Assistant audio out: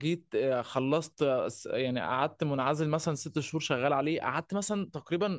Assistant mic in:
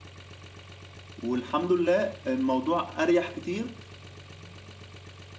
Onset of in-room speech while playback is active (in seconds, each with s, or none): 1.2 s